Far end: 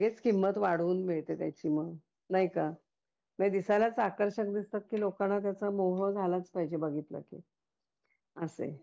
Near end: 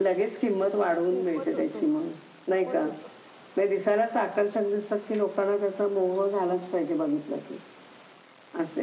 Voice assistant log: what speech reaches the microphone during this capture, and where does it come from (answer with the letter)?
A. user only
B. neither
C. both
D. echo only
C